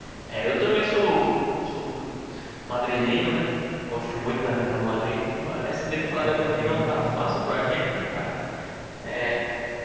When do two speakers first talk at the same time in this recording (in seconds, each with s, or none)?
6.2 s